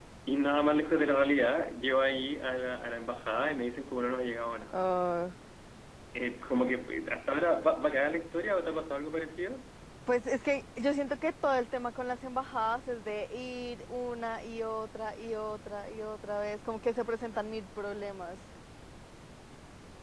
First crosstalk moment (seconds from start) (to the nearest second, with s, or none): none